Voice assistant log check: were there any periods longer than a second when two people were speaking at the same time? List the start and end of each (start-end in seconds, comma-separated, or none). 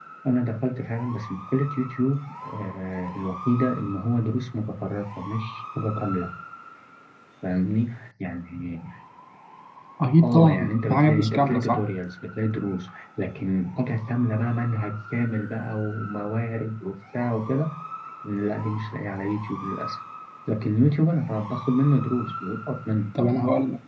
10.2-11.9